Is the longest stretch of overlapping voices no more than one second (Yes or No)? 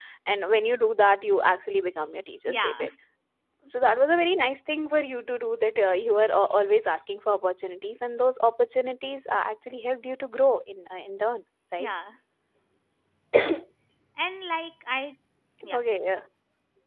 Yes